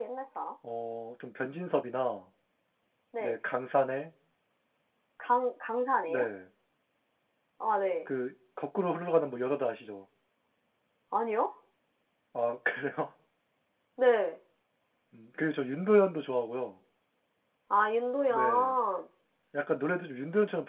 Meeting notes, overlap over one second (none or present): none